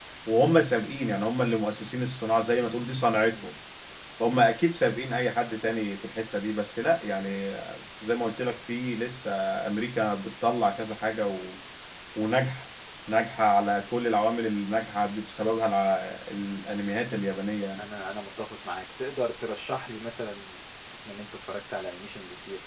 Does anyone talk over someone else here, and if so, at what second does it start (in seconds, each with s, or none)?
none